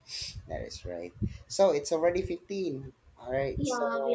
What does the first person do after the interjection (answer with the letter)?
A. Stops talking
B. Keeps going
A